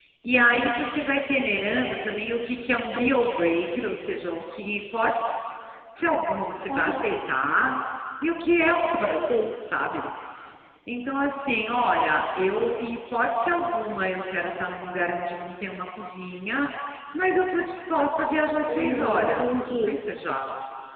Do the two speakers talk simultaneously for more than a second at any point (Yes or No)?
Yes